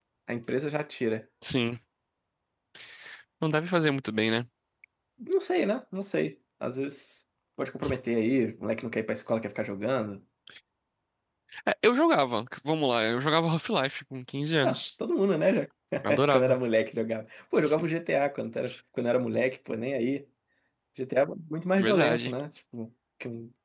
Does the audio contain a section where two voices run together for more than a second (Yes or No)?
No